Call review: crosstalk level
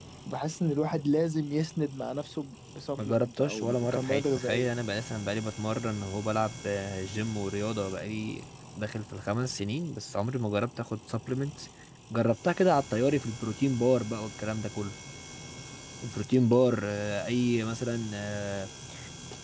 present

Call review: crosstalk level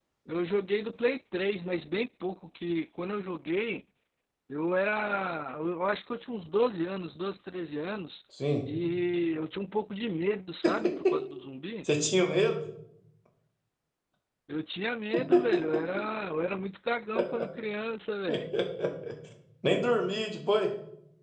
none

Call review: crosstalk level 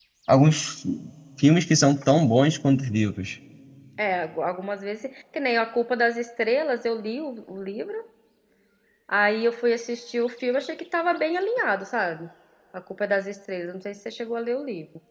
none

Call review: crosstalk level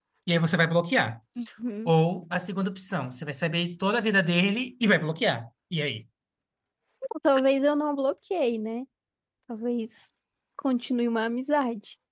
none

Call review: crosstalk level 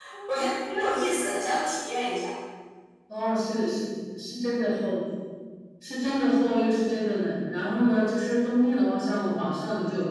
none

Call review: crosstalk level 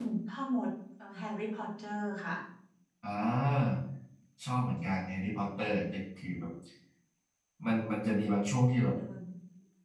none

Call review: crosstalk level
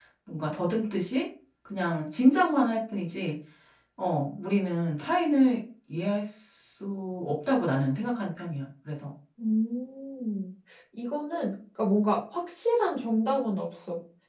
none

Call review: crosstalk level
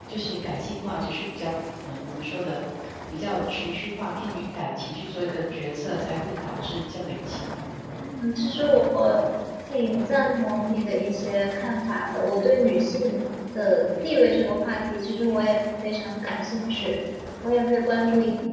none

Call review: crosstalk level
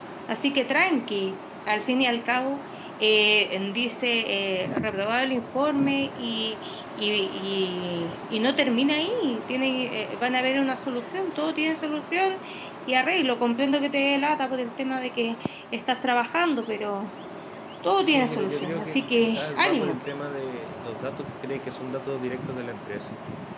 present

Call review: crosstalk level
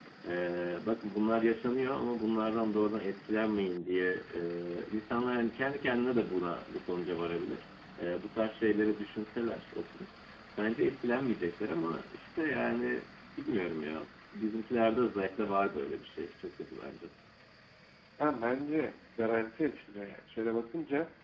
none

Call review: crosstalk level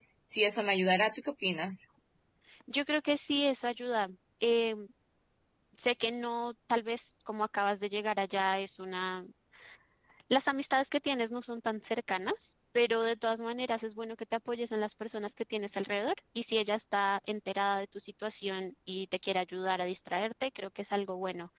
none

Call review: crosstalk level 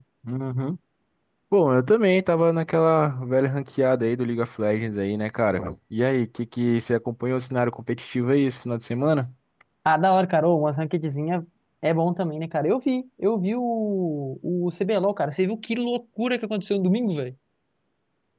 none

